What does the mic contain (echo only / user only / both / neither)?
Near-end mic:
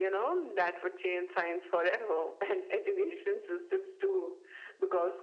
echo only